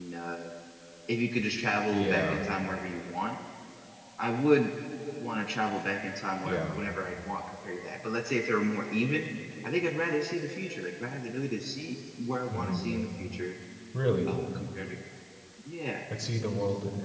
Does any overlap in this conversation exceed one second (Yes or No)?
No